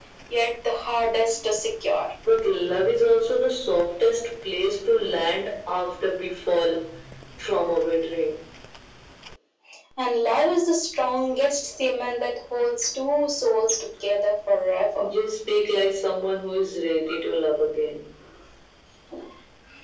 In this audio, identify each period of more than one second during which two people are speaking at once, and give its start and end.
none

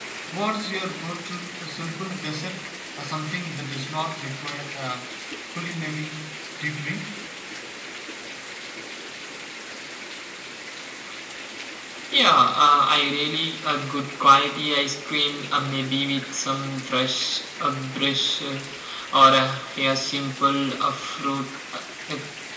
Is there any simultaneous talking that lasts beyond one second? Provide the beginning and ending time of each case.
none

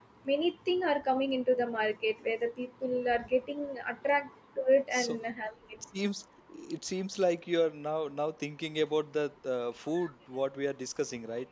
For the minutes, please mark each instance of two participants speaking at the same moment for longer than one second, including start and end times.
none

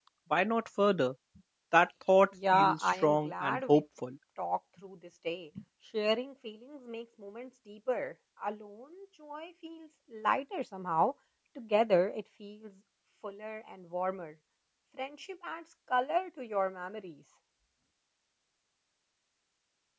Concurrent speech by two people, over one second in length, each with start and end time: 2.5-3.8

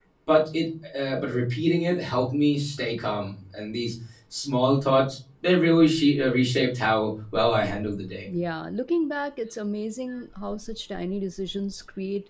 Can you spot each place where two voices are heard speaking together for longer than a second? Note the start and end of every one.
none

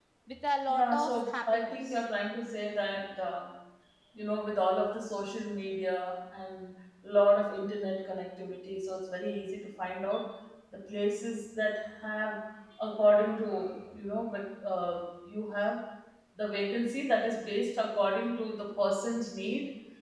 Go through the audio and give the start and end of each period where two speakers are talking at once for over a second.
0.7-2.0

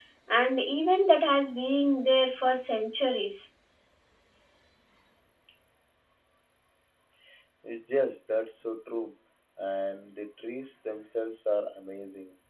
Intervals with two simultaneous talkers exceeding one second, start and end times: none

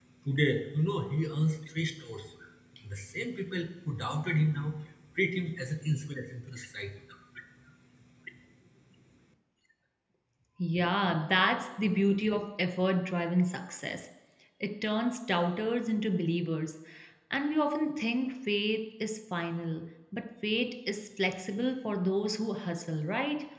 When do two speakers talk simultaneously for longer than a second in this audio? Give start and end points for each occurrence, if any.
none

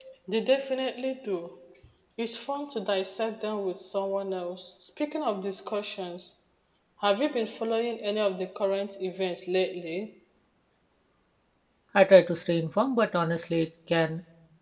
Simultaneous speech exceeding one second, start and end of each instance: none

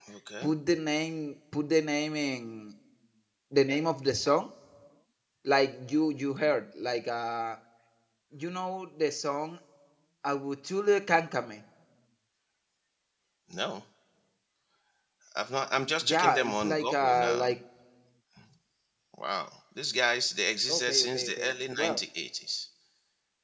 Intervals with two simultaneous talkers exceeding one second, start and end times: 16.0-17.5, 20.7-22.0

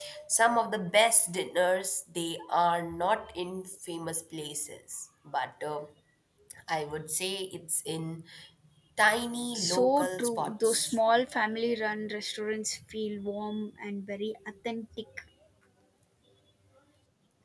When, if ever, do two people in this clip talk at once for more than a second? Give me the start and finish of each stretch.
9.5-11.0

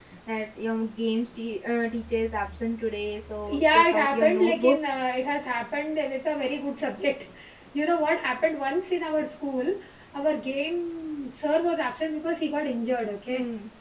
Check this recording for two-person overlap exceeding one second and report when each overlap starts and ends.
3.5-5.1

